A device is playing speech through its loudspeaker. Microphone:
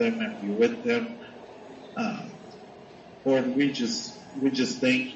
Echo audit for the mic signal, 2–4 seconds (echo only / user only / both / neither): echo only